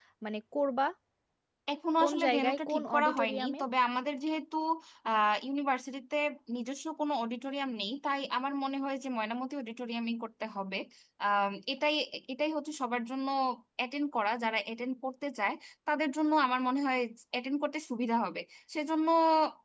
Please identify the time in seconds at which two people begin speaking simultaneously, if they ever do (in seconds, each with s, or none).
2.0 s